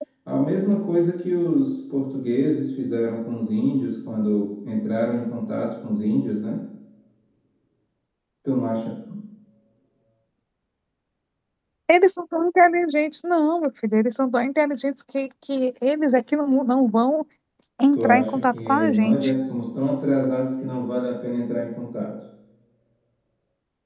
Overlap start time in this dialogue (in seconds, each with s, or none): 17.9 s